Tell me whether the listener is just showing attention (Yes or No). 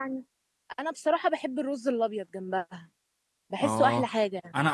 No